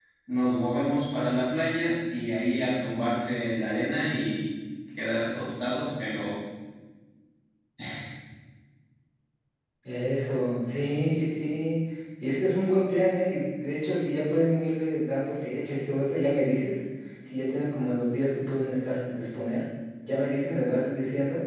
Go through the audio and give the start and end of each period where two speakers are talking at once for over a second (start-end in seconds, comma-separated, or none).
none